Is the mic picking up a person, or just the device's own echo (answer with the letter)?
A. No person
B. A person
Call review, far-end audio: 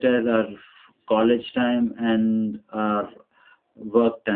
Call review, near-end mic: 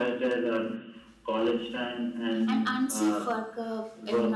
B